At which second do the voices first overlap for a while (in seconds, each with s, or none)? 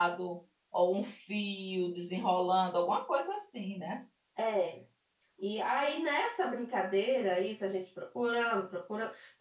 none